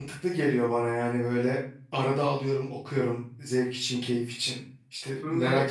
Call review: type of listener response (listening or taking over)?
listening